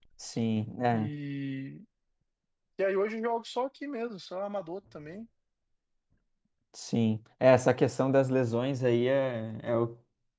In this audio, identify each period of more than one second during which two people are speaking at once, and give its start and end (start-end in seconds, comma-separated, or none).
none